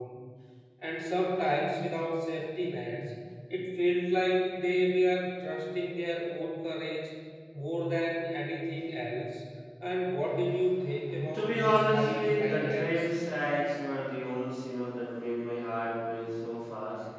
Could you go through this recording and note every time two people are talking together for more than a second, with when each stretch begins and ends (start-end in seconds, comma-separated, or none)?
11.3-13.0